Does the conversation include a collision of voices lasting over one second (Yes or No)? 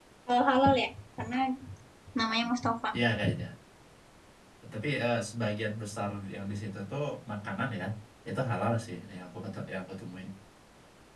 No